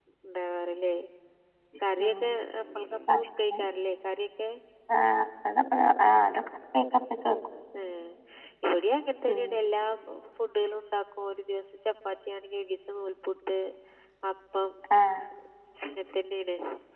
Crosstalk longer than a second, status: none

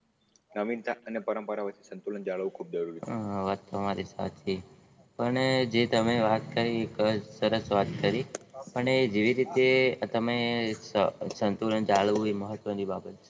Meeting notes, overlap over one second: none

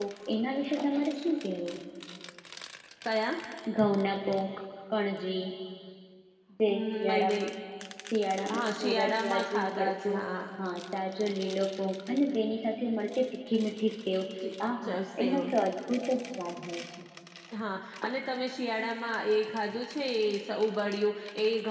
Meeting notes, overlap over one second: present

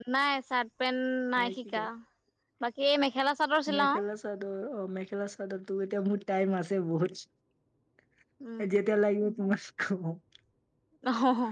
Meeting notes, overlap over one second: none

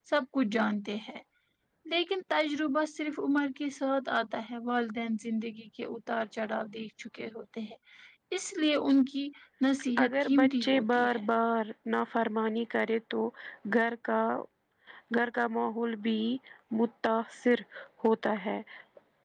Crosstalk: present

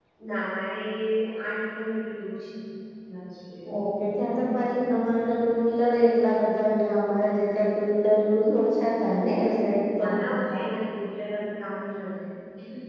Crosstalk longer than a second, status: none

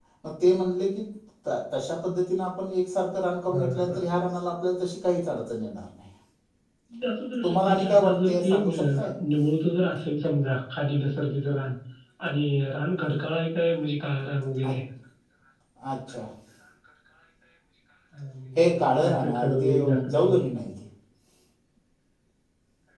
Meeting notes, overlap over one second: present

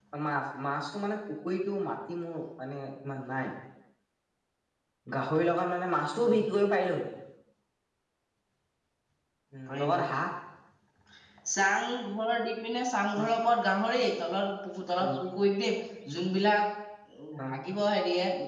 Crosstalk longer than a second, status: none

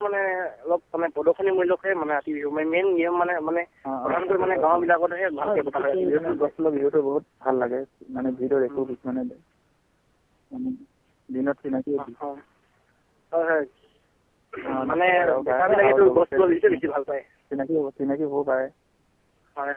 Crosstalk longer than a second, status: present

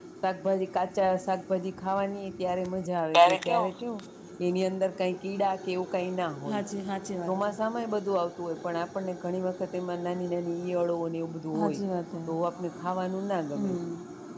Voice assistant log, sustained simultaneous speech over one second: none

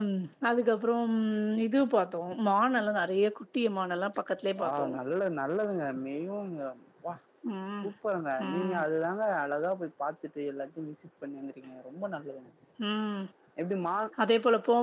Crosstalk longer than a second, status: none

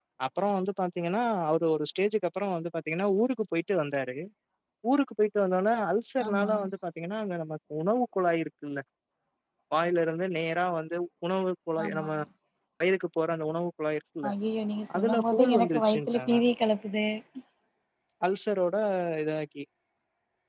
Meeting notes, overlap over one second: present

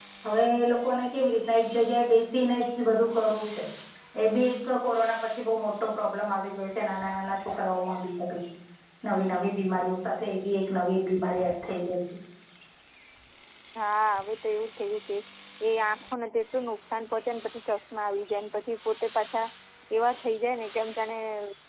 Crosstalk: none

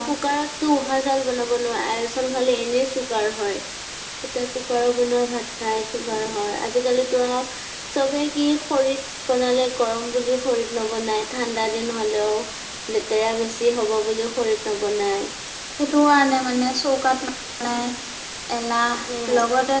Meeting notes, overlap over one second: none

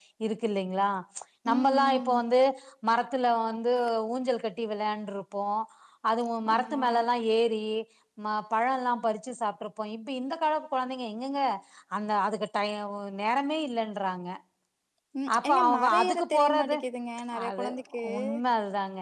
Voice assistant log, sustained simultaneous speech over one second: present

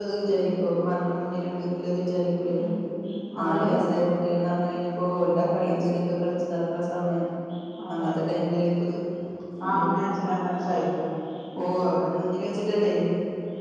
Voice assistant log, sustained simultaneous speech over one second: none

